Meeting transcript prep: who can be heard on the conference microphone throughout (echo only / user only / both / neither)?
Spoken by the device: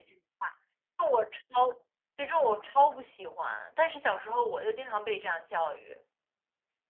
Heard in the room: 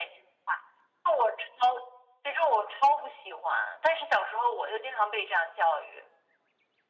echo only